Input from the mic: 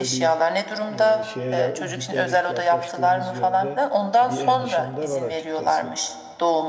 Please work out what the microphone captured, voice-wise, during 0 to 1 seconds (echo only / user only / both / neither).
both